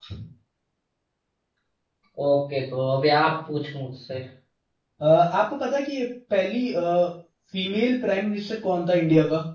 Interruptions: none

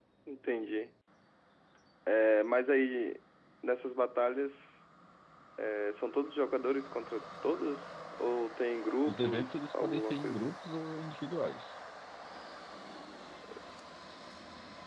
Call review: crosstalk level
present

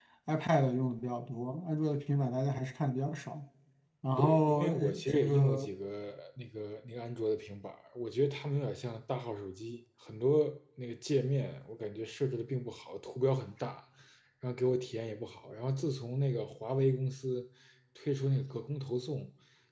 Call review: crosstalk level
present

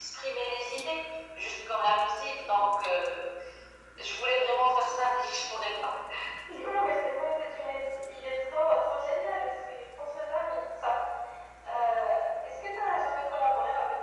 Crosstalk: none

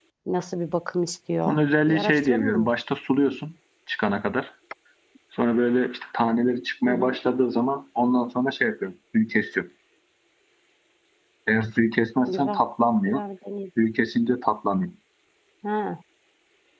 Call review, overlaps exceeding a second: present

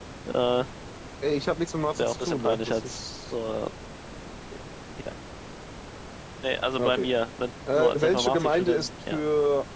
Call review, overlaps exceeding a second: present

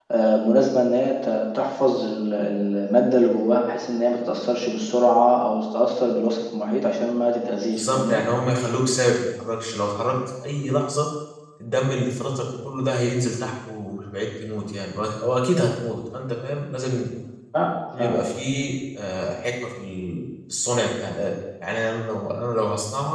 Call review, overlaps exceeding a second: none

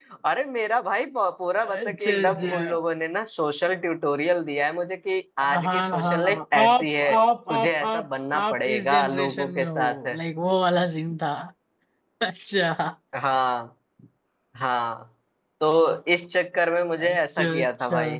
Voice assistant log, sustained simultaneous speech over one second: present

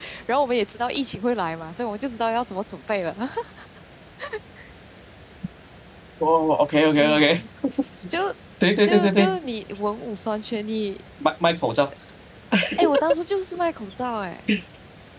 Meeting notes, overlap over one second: none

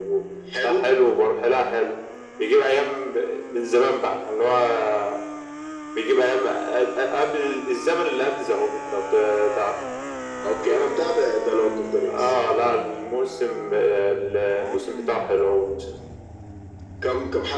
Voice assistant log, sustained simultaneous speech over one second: none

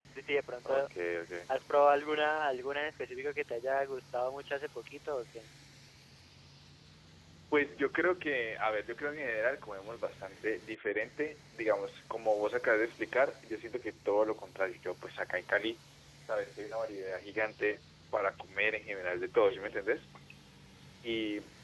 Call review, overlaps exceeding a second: none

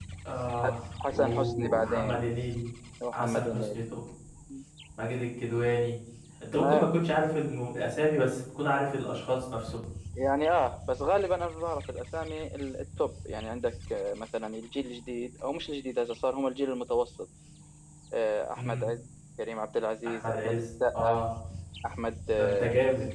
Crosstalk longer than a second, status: present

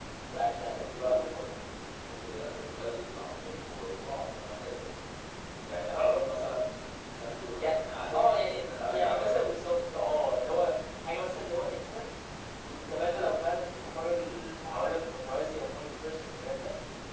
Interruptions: present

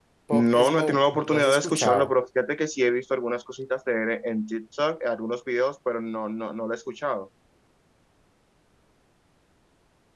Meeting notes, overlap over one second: present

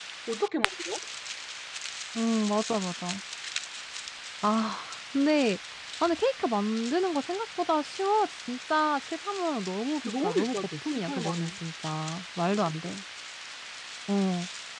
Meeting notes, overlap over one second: present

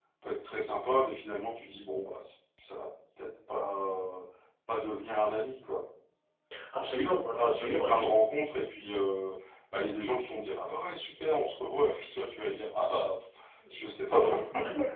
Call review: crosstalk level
present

